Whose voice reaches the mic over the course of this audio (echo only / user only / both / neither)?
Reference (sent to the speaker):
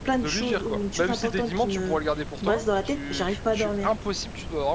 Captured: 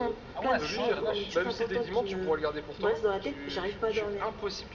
both